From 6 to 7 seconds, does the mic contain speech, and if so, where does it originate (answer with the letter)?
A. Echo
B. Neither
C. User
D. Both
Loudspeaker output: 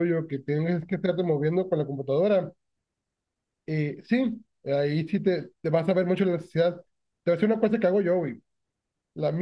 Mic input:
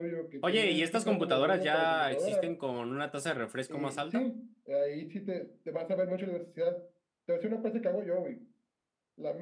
A